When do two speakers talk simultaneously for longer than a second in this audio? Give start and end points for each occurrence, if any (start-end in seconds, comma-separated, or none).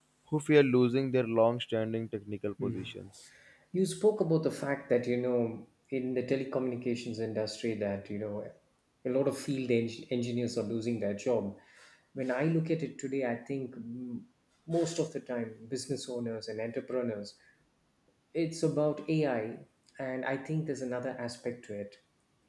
none